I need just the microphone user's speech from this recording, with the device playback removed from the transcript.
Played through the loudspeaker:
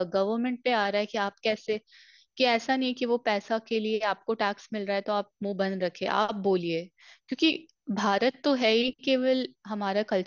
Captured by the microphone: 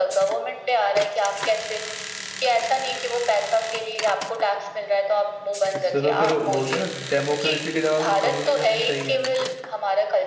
इससे तो फिर बोलते हैं ना डेमोक्रेसी की जगह फिर कम्युनिज्म ही सही है

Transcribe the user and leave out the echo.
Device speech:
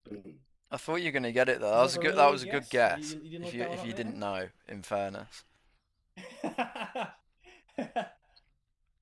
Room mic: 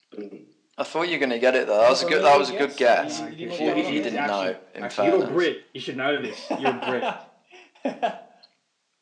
what can I get? Oh, he, he's actually actually you're a Brit. You should know this. You're a Brit.

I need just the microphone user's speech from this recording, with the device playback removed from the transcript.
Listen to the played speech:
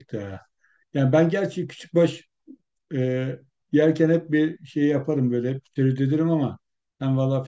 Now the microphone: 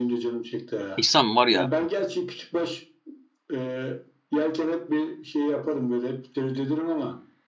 İhsan var ya

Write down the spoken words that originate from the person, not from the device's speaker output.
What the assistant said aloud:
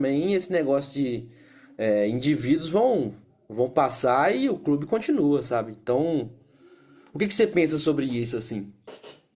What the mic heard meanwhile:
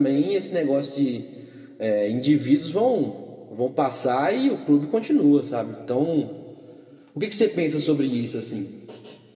none

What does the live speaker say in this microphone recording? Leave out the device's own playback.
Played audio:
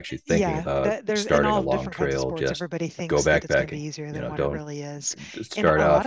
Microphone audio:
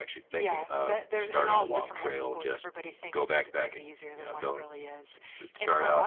cardiology,

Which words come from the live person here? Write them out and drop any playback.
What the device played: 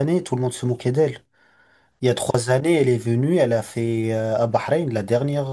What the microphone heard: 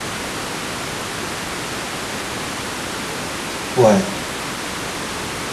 Ouais,

